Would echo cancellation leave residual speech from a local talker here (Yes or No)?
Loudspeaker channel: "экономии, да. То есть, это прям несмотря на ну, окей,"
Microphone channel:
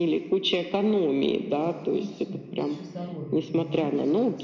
Yes